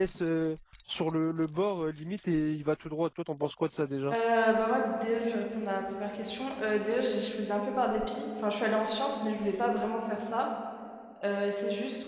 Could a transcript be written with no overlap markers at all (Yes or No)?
Yes